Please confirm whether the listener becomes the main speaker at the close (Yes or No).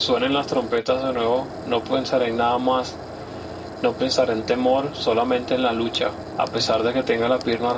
No